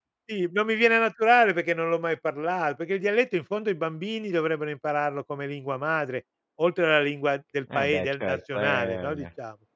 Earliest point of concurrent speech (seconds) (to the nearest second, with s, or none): 8 s